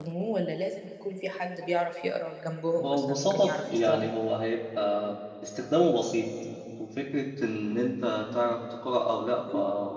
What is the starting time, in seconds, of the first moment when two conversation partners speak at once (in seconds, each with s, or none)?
2.8 s